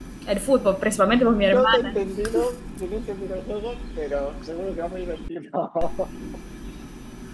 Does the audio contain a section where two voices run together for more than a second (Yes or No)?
No